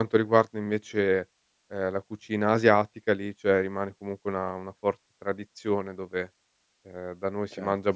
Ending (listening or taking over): listening